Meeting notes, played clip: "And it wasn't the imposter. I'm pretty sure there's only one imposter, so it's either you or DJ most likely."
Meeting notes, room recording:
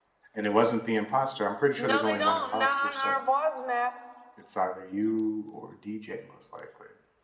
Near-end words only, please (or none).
No, they don't. Not on our boss maps.